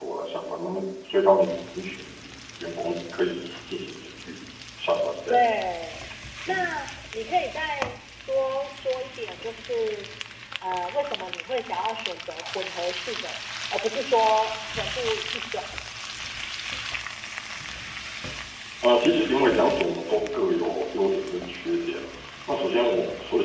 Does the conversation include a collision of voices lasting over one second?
No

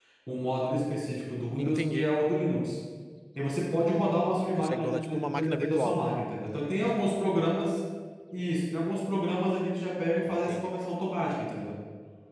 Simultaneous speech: Yes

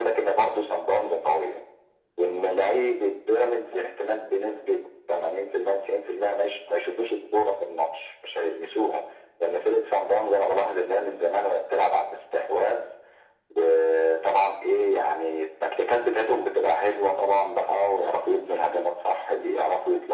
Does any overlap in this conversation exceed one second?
No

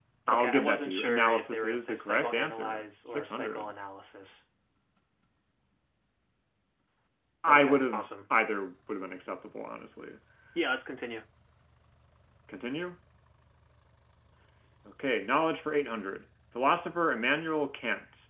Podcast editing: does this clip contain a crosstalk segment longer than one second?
Yes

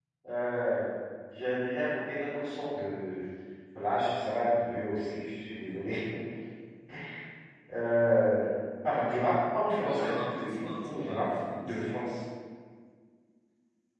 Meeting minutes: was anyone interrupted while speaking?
Yes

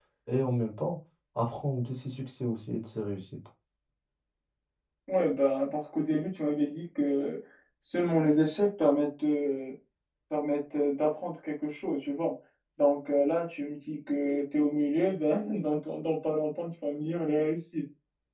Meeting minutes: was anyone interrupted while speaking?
No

